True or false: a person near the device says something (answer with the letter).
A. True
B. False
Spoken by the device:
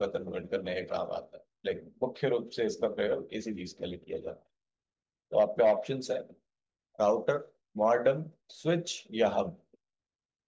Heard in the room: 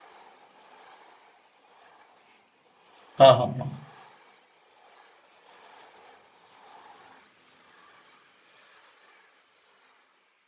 A